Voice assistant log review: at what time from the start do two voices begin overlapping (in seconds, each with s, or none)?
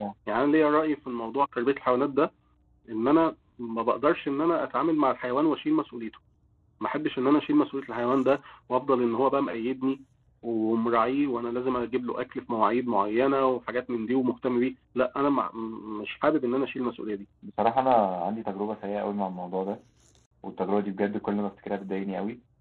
none